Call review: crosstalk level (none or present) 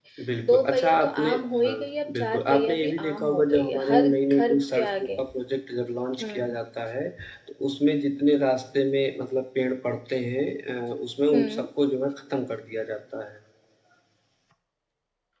present